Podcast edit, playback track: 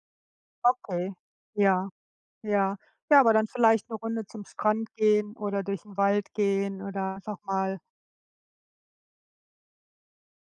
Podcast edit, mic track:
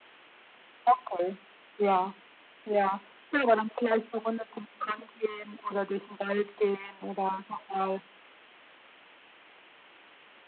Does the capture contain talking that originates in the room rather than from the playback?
No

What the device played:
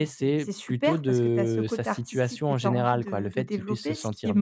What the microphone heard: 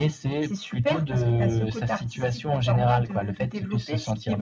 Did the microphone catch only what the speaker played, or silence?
Yes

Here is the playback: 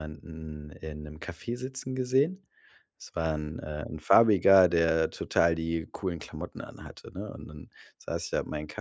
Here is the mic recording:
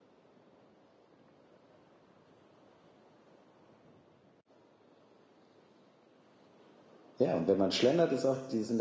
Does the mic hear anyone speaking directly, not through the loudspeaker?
Yes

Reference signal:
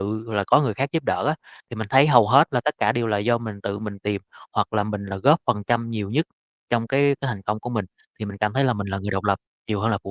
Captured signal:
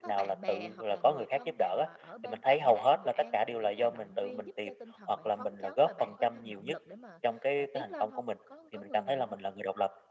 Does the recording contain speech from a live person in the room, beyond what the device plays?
Yes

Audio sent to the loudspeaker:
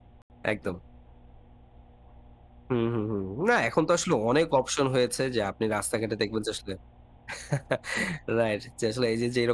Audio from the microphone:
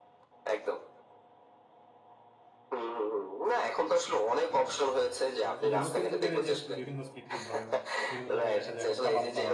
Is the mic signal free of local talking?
No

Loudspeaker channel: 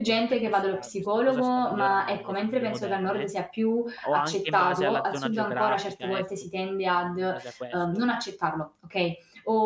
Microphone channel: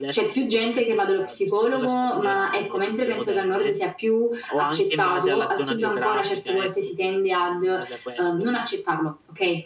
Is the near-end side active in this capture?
No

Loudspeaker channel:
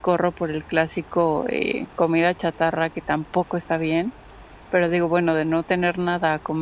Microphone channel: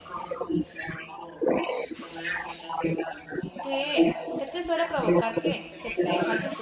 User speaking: Yes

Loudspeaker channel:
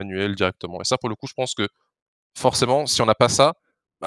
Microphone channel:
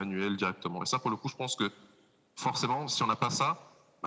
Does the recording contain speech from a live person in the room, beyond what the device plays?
No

